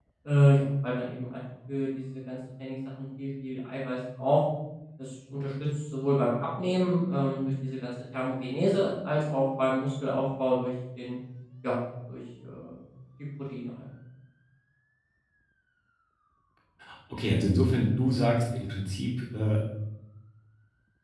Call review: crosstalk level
none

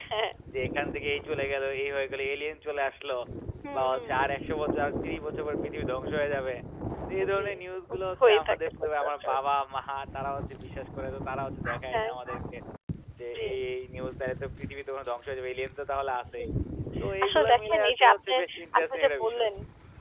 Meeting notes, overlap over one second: present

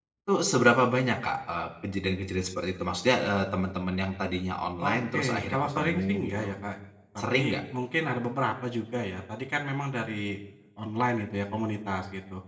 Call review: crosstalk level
present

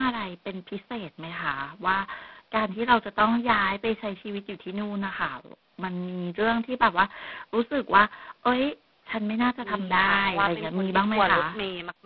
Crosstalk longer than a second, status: present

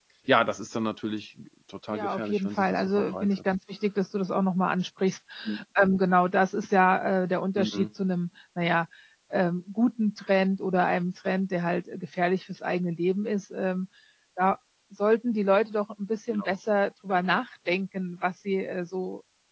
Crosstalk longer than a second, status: present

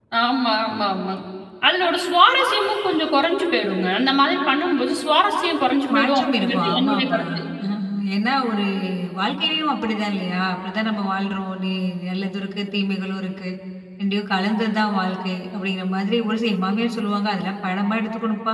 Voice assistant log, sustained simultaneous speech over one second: present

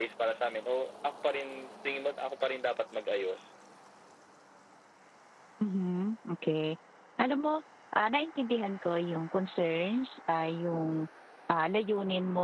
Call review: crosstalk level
none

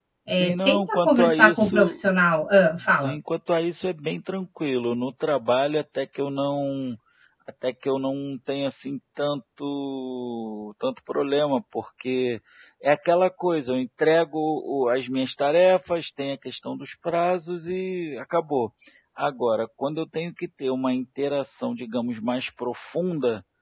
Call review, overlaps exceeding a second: present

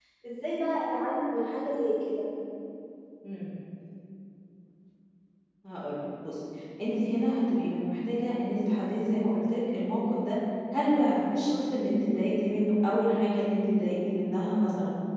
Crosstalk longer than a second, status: none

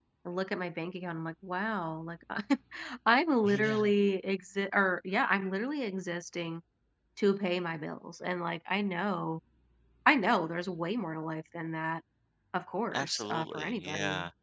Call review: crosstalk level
present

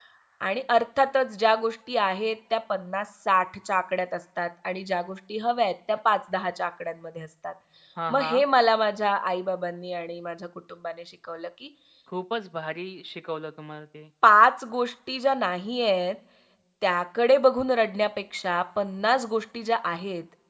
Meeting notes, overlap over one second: none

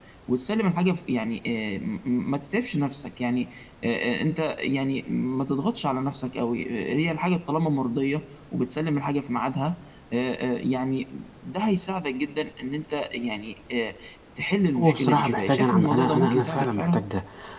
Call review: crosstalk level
present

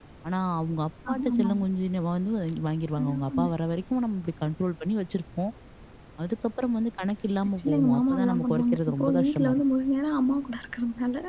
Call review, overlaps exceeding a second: present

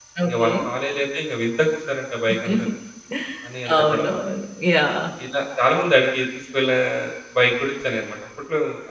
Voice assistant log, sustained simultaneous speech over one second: none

